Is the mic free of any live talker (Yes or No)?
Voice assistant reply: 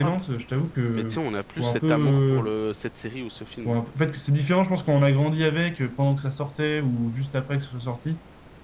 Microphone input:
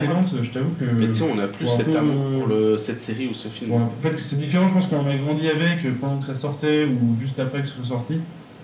Yes